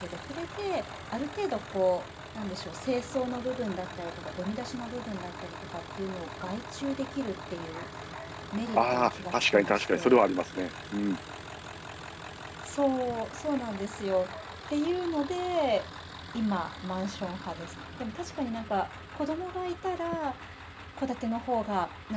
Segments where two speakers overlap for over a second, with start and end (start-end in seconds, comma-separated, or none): 8.7-10.2